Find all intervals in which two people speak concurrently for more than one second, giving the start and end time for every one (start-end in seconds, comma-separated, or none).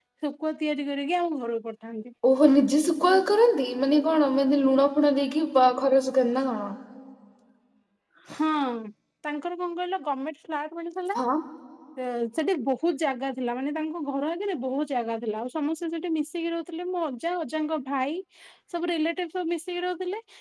none